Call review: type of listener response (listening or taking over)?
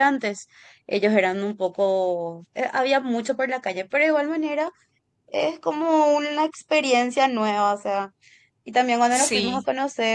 listening